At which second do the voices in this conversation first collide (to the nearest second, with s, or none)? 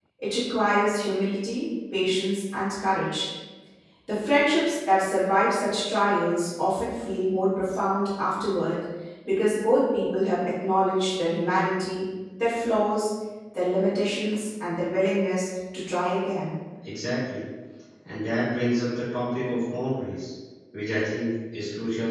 none